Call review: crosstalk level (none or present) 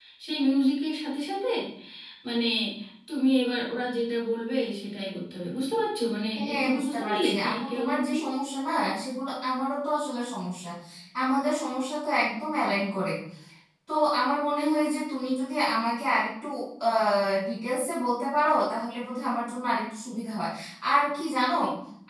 present